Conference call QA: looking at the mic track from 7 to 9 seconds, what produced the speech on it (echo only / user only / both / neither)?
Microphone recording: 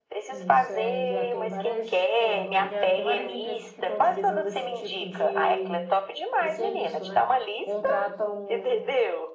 both